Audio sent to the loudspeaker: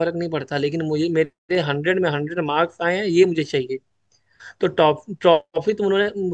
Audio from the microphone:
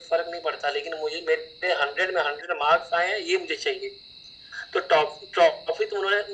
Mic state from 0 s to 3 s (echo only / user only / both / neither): echo only